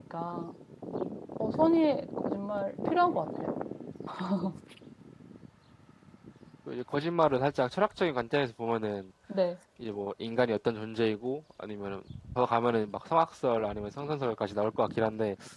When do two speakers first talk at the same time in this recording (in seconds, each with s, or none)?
none